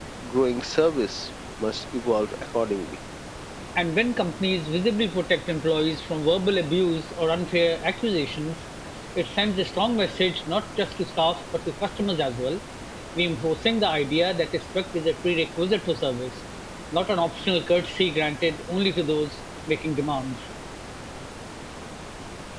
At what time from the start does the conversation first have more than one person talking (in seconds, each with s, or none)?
none